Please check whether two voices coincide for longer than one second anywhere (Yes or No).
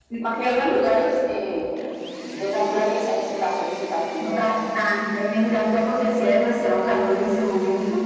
No